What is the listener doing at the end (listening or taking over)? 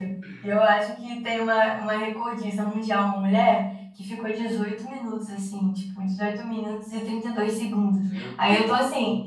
listening